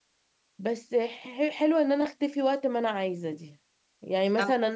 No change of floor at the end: Yes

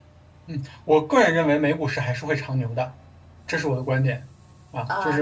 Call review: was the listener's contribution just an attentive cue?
No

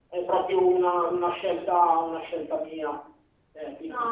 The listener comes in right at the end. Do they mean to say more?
Yes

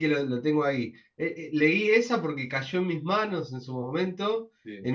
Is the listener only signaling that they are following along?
Yes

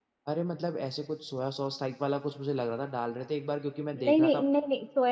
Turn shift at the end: Yes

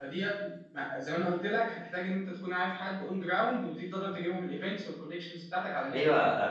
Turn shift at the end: Yes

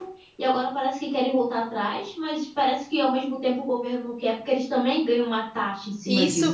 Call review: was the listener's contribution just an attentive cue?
No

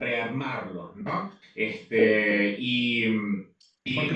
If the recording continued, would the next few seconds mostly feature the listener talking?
Yes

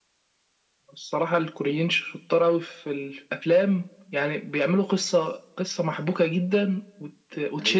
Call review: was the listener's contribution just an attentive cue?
Yes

